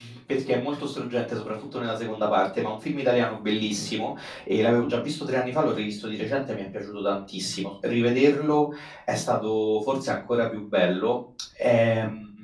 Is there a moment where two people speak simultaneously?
No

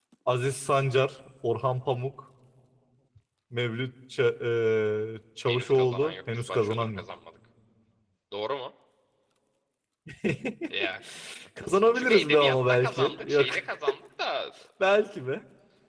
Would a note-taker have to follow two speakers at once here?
Yes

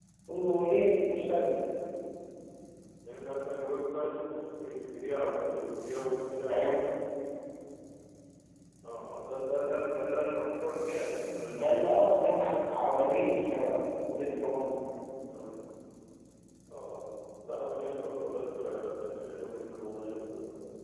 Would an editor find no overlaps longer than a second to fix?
Yes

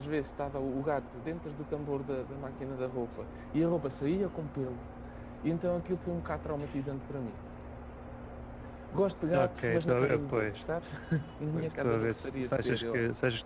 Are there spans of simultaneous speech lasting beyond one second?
Yes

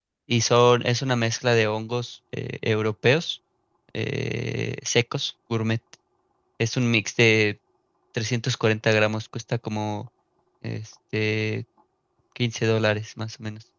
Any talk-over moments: No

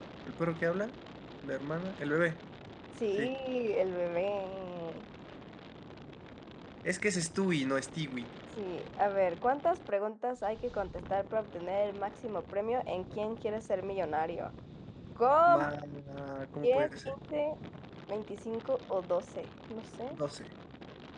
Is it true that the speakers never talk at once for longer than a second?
Yes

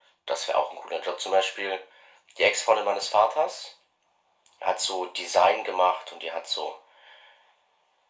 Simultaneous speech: No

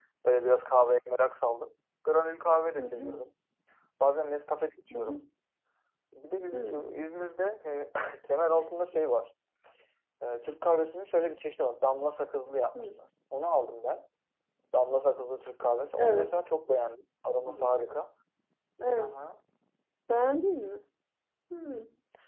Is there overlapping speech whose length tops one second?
No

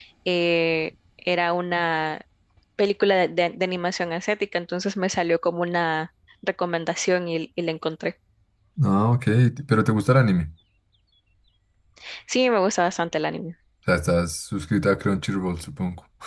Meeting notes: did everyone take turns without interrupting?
Yes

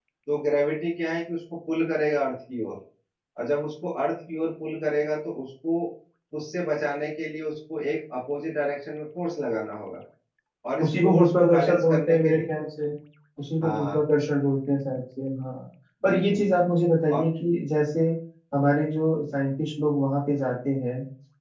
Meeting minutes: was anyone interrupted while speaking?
Yes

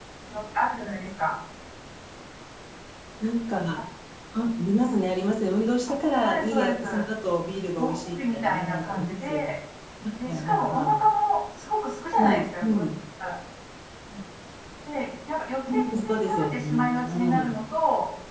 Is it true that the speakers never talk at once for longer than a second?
No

